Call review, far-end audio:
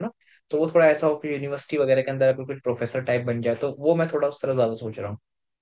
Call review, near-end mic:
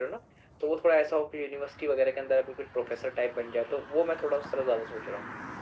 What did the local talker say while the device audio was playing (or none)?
none